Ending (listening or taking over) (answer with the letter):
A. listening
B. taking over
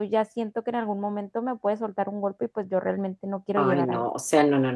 B